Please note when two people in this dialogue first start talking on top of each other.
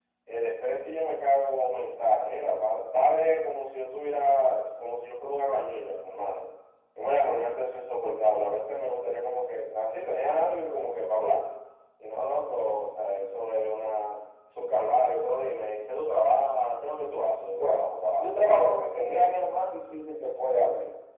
17.6 s

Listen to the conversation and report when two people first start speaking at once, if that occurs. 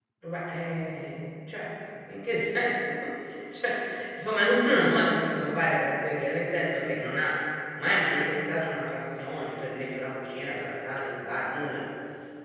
none

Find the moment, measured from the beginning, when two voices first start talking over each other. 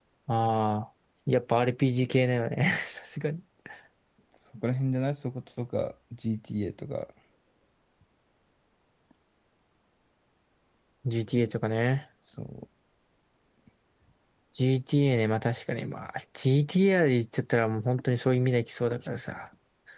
none

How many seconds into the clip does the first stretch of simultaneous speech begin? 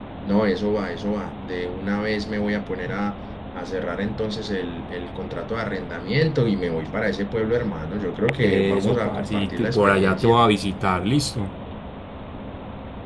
8.4 s

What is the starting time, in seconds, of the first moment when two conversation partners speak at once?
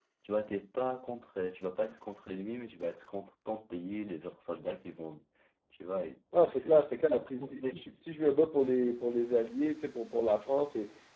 6.5 s

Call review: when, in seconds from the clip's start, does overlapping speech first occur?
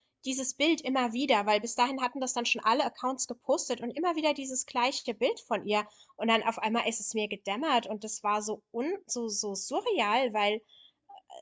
none

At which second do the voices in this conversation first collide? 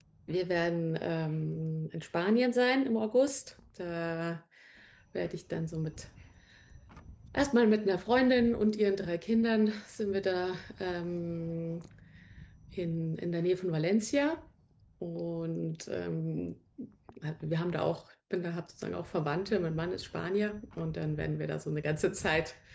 none

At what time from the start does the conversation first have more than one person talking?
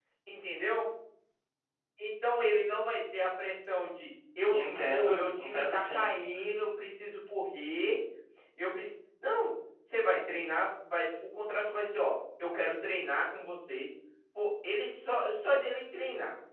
4.5 s

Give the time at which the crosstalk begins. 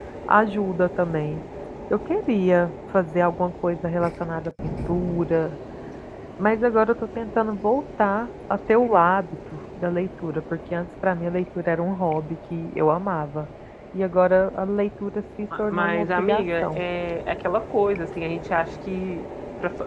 15.5 s

